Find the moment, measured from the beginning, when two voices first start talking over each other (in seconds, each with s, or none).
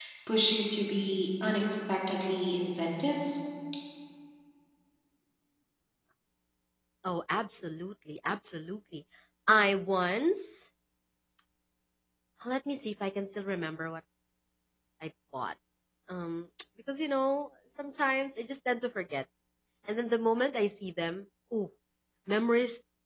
none